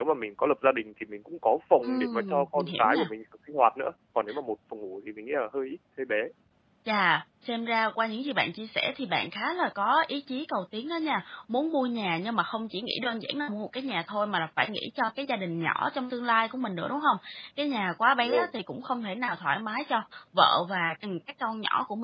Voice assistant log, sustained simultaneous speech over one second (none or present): present